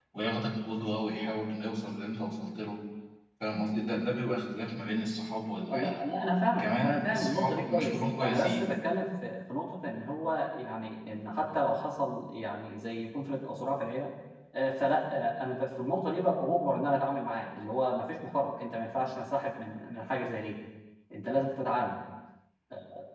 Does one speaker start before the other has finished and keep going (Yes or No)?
Yes